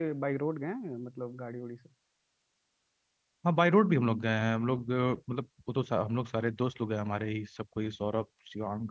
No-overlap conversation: Yes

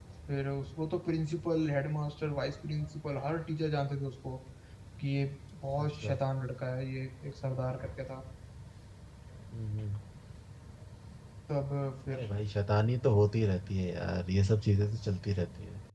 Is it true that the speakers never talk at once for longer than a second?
Yes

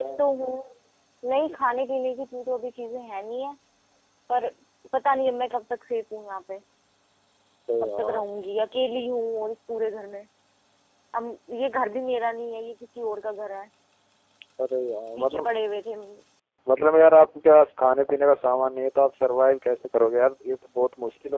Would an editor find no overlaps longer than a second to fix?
Yes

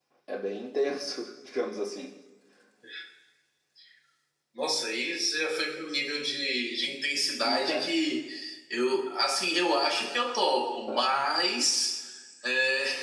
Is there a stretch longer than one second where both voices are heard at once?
No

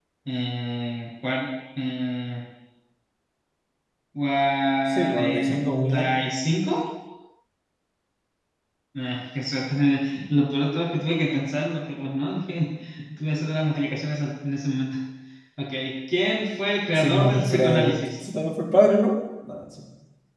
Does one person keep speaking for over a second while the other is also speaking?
Yes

